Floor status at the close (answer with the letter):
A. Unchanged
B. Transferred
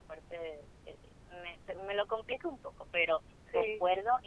A